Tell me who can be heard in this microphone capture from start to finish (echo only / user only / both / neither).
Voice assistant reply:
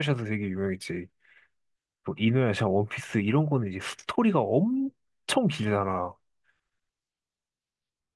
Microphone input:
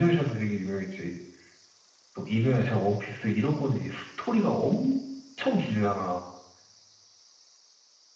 echo only